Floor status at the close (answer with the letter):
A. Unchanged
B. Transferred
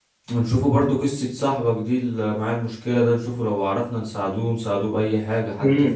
B